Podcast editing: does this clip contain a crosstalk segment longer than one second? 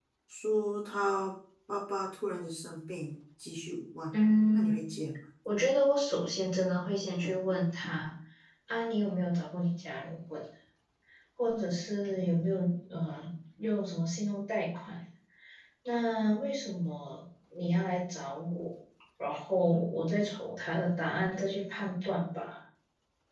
No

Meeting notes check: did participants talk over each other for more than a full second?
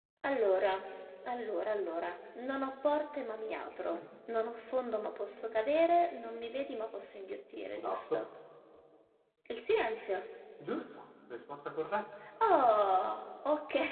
No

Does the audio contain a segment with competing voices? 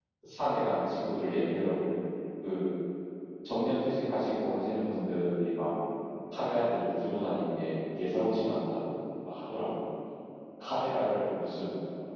No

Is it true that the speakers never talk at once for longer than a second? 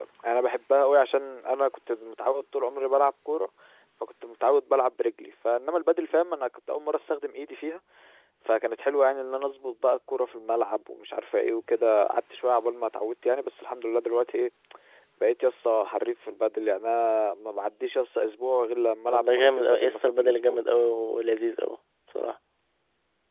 No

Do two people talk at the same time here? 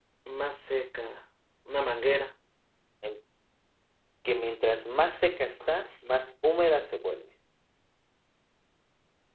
No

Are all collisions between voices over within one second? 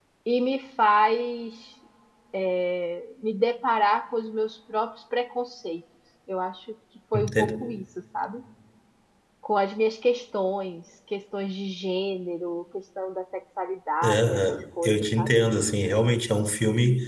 No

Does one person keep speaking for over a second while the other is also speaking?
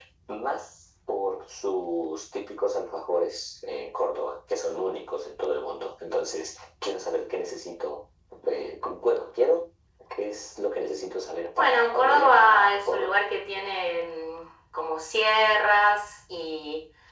Yes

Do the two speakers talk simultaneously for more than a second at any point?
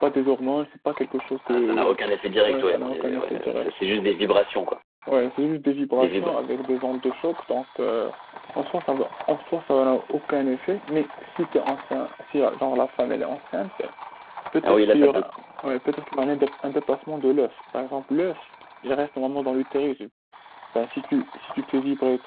Yes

